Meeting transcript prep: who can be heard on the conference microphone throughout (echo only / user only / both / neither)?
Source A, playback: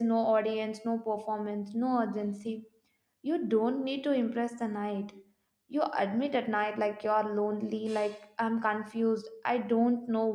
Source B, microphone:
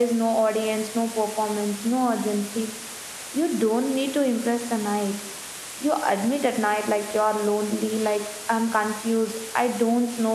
echo only